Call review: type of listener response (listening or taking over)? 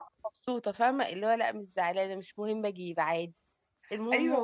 taking over